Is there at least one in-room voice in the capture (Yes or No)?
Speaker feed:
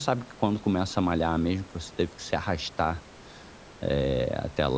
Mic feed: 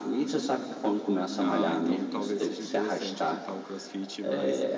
Yes